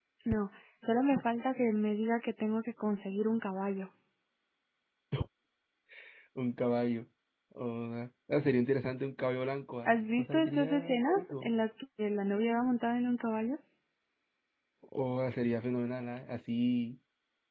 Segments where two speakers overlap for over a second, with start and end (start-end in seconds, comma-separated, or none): 9.8-11.5